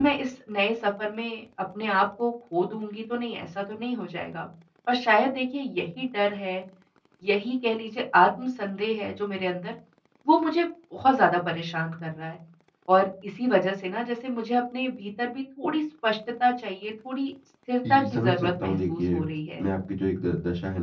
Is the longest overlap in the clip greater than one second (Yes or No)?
Yes